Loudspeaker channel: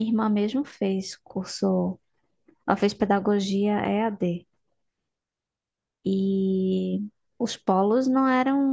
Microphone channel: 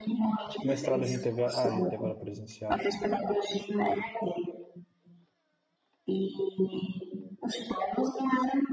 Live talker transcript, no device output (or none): mestrado a gente teve, a- ah, a gente teve aula presencial.